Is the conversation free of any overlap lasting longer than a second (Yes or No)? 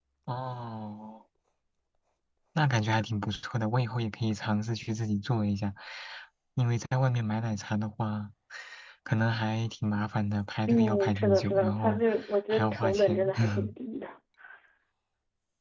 No